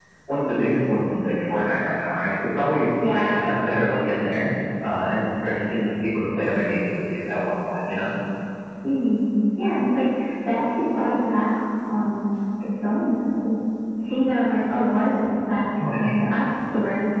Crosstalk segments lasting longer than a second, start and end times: none

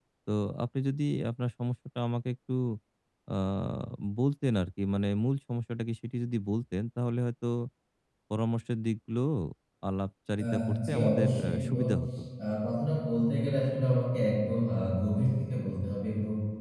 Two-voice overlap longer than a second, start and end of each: 10.4-11.8

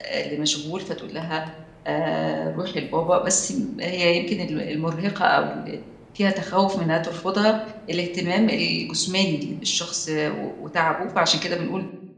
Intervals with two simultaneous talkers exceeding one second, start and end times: none

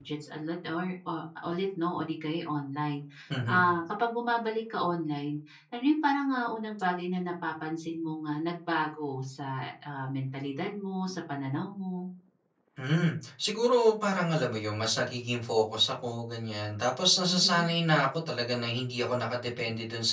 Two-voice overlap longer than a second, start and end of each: none

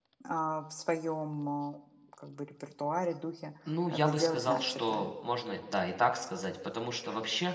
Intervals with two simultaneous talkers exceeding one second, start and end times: 3.9-5.1

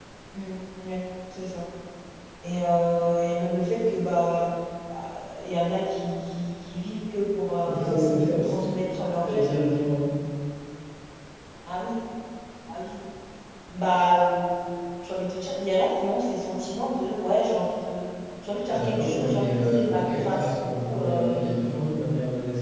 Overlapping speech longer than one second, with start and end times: 18.7-21.5

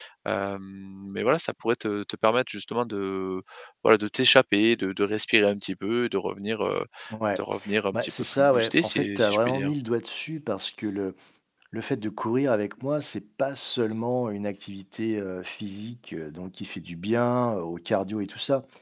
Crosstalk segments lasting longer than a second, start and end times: 7.9-9.7

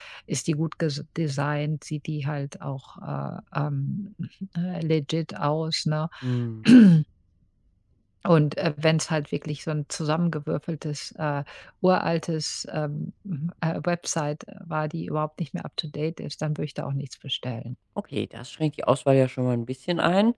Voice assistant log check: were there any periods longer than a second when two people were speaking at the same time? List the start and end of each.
none

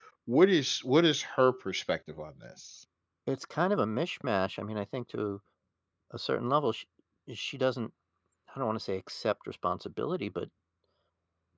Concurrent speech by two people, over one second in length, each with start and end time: none

